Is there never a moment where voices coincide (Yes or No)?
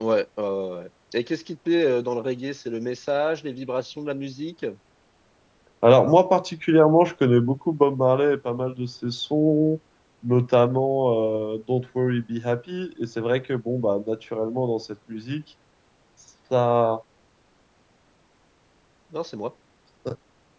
Yes